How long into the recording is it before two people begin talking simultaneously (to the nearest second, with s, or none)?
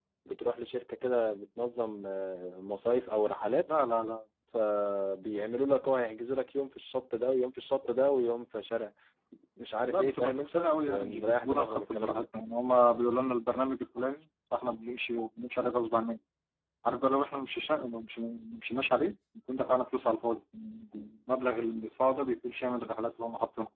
10 s